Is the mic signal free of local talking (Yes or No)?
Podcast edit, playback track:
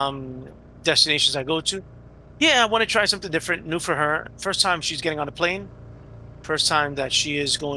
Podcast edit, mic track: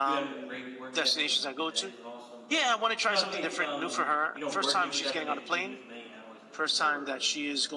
No